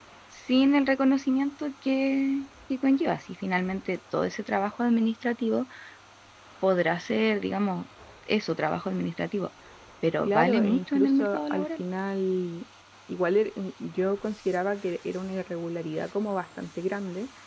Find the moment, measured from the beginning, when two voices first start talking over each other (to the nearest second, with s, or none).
10 s